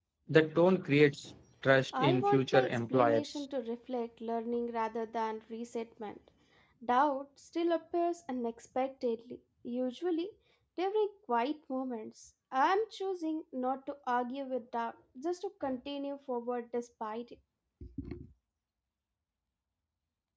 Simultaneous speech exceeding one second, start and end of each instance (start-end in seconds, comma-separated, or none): 2.0-3.4